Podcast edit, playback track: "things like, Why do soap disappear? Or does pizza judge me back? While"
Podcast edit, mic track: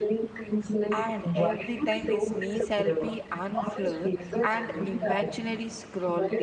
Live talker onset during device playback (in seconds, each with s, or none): 1.0 s